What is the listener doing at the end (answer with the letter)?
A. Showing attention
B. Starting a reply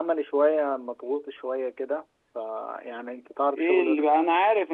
B